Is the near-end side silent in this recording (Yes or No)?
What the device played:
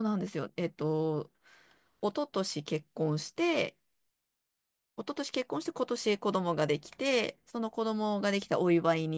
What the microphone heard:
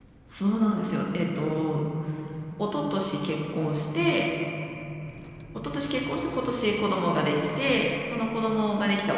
Yes